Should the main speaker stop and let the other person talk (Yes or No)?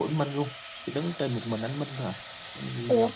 No